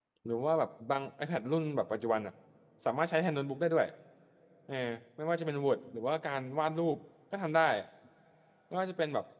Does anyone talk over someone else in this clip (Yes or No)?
No